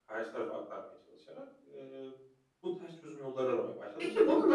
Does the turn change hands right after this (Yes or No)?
Yes